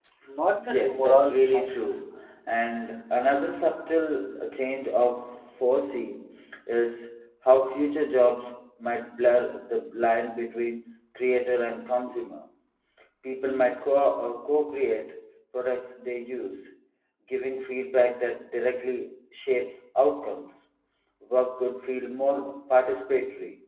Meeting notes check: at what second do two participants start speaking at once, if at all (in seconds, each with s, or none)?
0.7 s